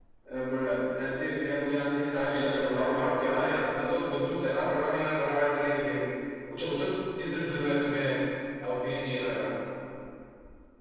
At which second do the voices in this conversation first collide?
2 s

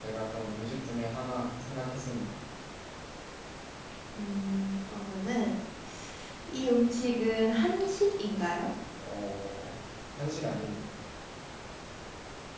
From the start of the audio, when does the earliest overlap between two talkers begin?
none

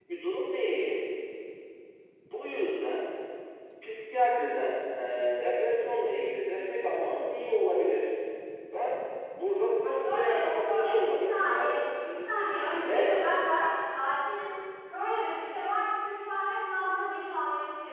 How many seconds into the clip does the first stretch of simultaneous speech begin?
10 s

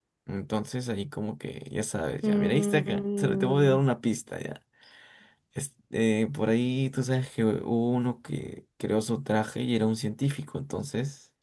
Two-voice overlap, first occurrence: 2 s

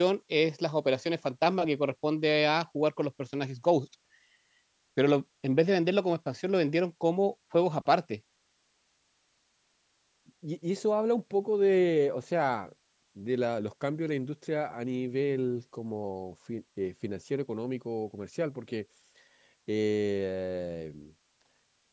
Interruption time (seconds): none

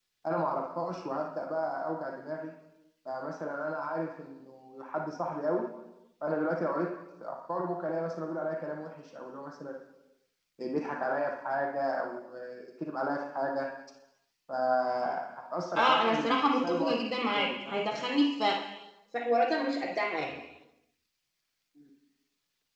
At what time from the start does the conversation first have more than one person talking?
16 s

